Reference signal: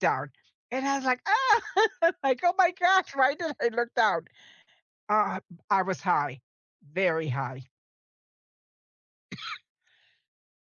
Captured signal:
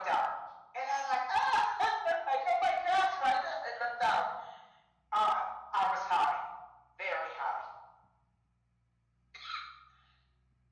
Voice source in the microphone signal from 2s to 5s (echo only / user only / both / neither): echo only